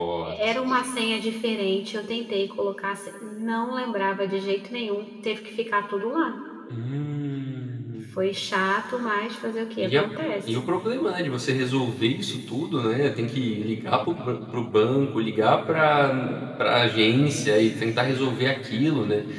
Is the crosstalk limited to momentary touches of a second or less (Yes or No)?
Yes